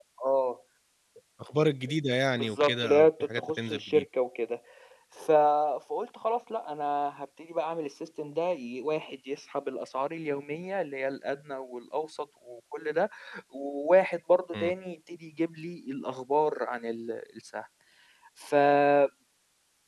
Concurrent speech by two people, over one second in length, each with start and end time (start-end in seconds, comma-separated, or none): 2.4-4.0